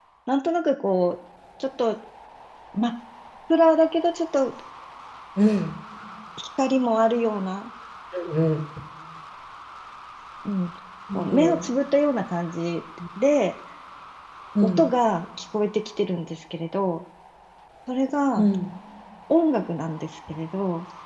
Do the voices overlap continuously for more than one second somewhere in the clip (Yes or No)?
No